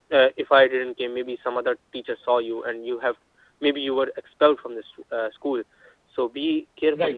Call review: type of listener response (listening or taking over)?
listening